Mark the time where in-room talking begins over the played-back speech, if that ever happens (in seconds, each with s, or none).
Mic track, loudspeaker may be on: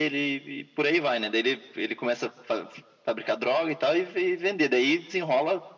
none